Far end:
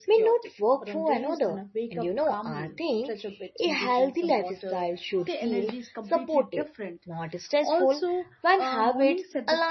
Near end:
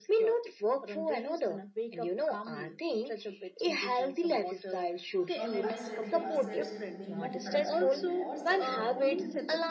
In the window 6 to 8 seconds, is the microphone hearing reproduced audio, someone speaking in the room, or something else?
both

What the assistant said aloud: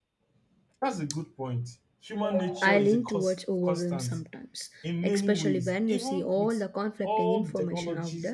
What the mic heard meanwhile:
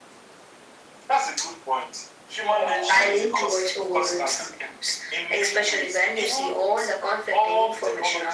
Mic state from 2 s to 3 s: echo only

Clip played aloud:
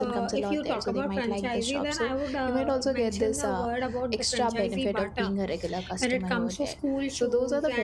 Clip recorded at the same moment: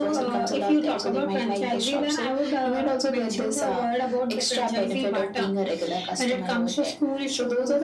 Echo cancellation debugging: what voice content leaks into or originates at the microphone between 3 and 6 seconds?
echo only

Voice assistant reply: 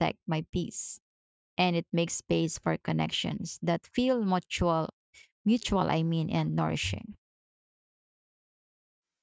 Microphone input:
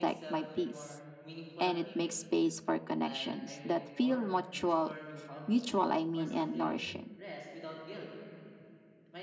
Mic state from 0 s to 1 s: both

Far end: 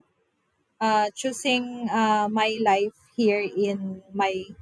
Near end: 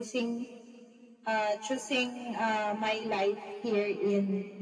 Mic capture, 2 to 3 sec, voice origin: echo only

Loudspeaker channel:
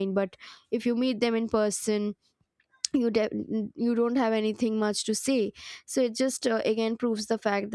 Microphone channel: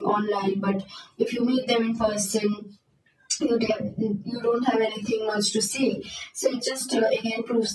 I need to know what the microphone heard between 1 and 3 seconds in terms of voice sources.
echo only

